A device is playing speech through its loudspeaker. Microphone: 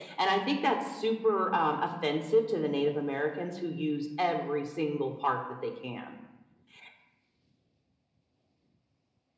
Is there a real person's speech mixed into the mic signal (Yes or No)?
No